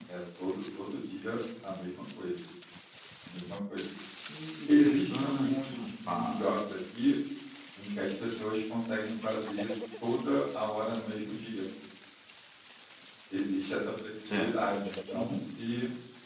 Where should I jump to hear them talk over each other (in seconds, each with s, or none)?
4.8 s